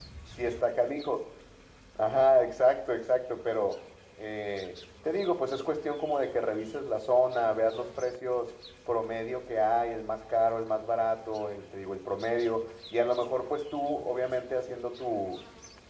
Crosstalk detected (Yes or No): No